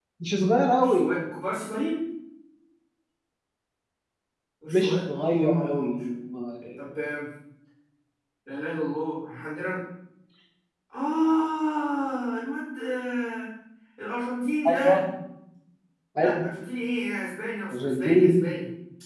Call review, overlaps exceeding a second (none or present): present